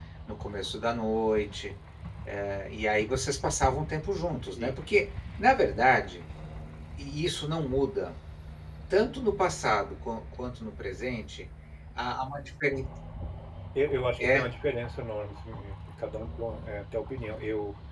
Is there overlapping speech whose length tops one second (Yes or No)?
No